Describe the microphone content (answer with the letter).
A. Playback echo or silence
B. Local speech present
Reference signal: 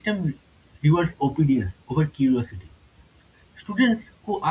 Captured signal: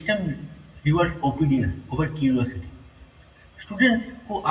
A